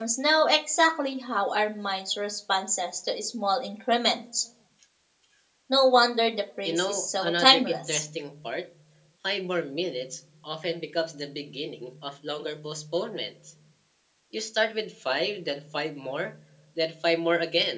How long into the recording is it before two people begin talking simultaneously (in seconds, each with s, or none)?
6.6 s